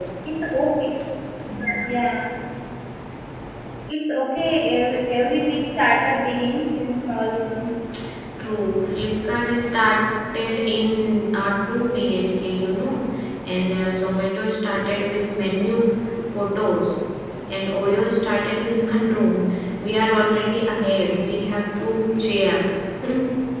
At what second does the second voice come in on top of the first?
none

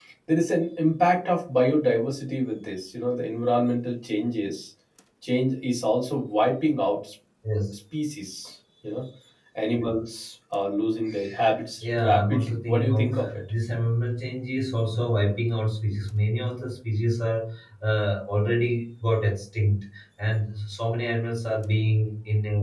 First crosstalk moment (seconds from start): 11.8 s

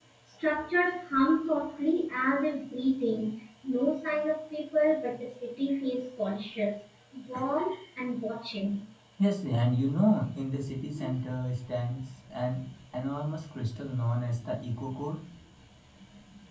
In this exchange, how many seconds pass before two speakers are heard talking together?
none

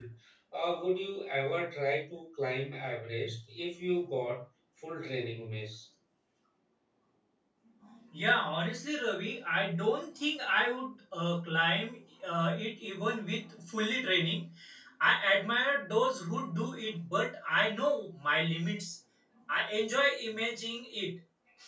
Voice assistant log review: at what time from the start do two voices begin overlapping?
none

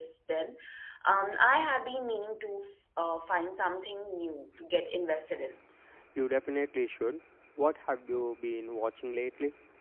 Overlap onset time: none

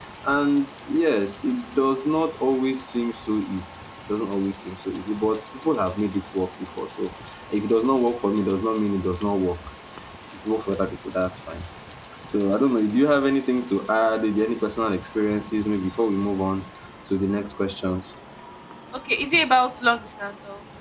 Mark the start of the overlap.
none

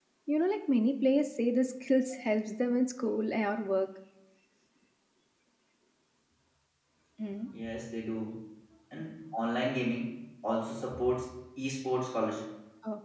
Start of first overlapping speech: none

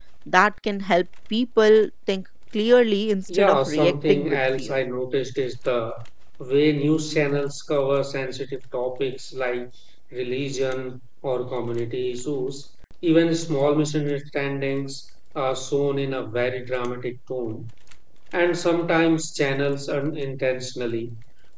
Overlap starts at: 3.3 s

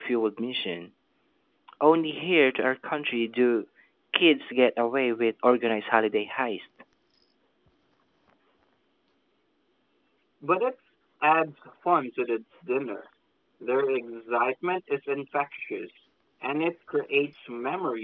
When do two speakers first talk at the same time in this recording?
none

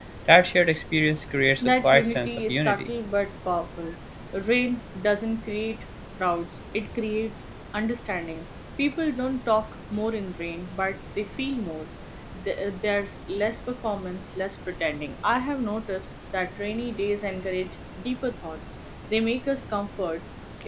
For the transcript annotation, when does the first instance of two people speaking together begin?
1.6 s

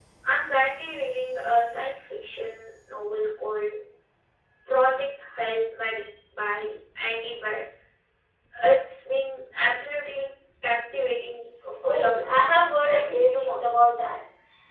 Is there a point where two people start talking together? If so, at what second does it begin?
11.8 s

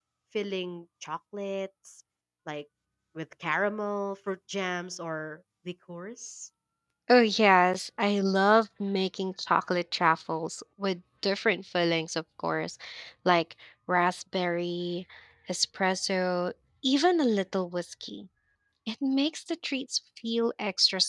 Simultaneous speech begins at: none

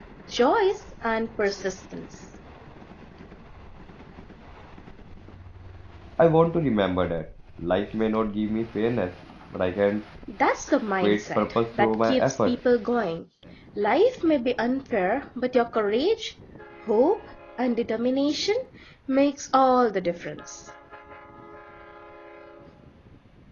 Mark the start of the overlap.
11.0 s

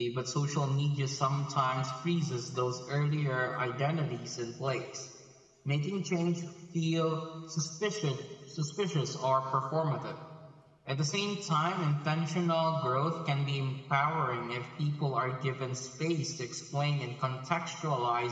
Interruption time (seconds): none

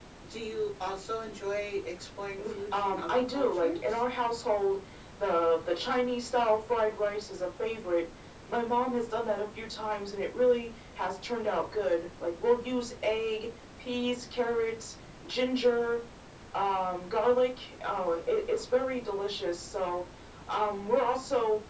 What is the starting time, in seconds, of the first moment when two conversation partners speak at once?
2.4 s

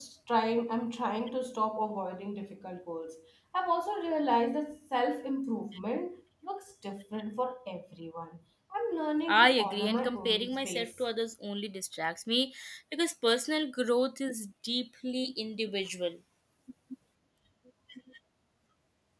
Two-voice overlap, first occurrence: 9.3 s

